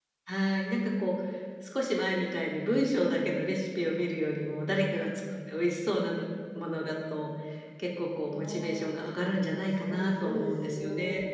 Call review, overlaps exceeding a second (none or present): present